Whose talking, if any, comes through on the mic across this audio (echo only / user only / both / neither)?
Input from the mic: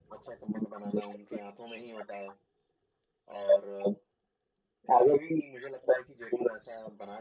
echo only